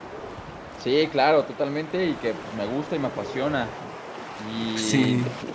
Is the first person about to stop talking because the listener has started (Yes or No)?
No